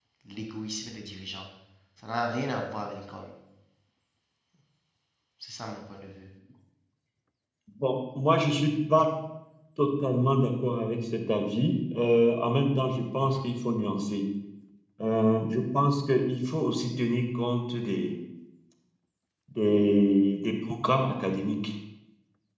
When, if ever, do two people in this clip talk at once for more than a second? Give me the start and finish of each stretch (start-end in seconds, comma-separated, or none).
none